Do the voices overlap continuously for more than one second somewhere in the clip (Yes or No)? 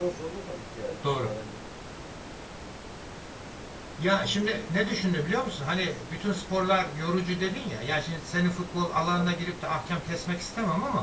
No